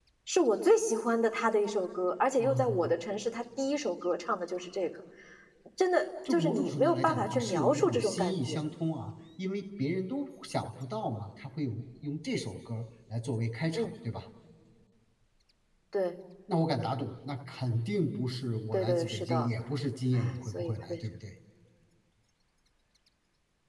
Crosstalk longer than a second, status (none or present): present